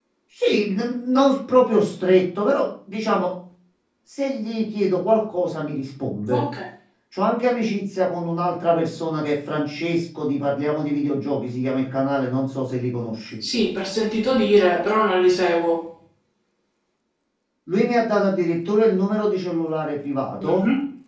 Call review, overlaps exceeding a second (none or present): none